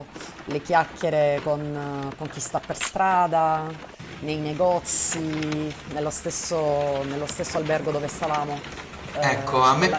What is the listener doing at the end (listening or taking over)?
taking over